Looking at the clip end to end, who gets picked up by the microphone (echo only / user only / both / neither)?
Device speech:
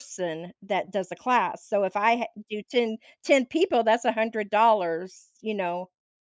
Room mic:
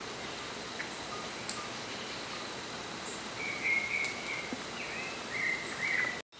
neither